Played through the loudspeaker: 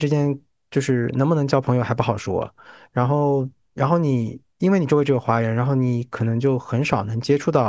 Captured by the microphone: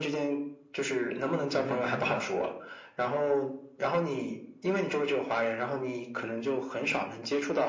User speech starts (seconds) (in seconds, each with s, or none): 1.5 s